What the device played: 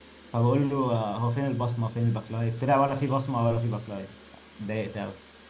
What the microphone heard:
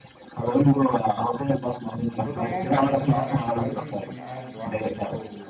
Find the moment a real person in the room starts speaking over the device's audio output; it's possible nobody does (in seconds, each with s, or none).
2.1 s